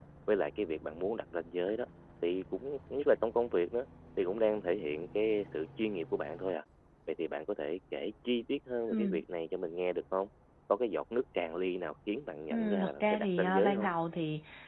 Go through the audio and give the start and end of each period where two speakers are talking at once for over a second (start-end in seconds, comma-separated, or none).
12.5-13.9